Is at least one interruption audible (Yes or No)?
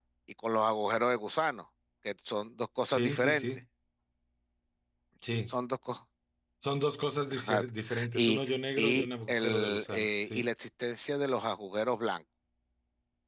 Yes